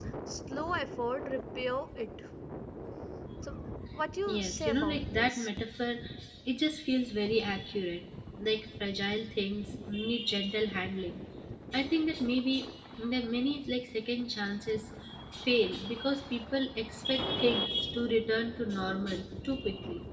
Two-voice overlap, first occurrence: 4 s

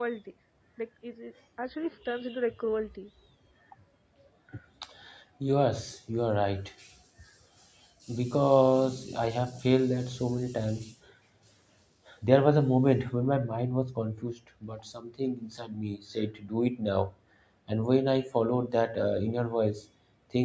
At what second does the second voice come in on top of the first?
none

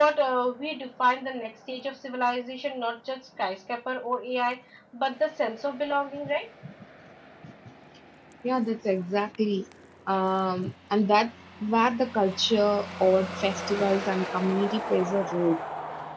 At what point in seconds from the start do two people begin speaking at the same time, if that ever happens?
none

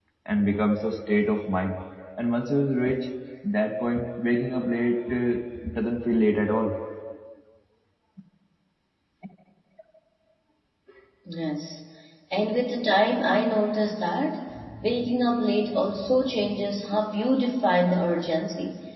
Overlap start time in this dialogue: none

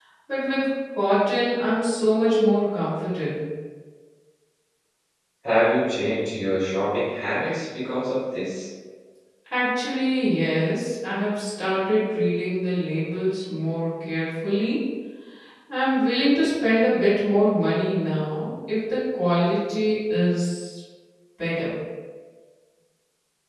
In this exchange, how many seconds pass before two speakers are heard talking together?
none

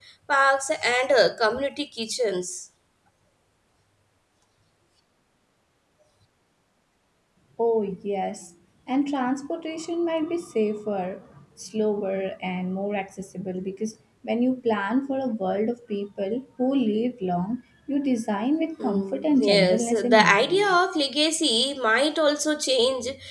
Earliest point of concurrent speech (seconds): 19 s

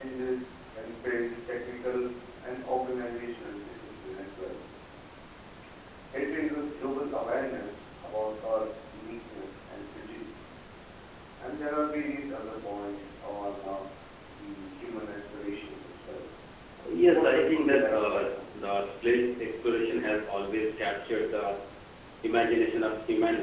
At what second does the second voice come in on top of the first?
17 s

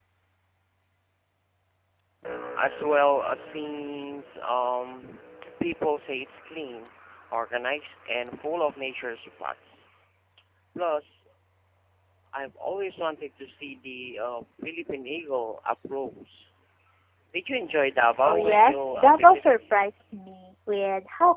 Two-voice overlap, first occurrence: 18 s

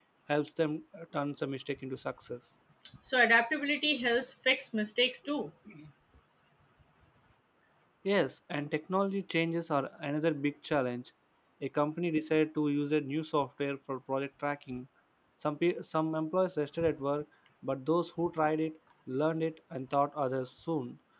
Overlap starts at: none

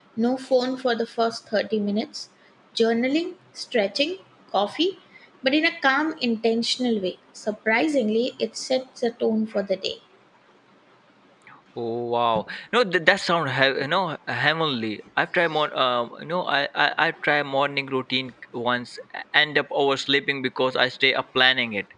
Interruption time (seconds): none

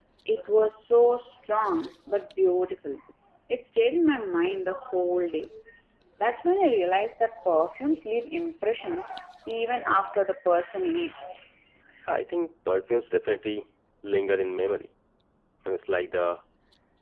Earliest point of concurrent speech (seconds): none

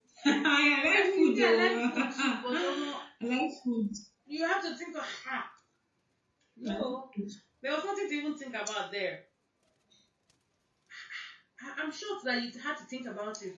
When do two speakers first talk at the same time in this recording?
1 s

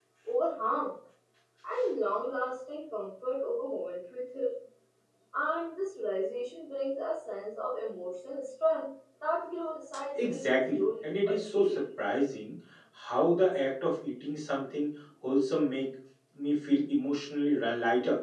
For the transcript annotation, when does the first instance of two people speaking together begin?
10 s

